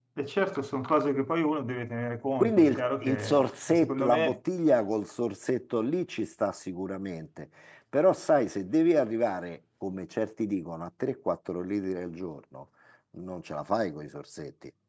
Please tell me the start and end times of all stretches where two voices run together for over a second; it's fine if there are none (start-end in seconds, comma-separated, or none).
2.4-4.4